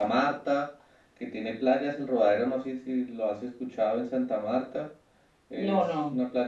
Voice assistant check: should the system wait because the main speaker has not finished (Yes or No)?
Yes